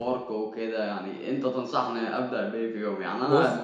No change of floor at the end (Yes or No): Yes